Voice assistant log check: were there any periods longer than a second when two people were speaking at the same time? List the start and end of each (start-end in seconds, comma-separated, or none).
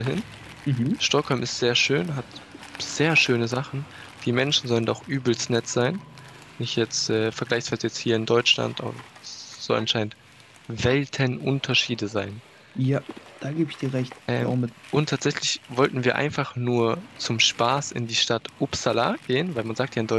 none